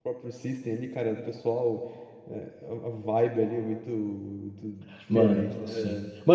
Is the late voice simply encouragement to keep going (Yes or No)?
No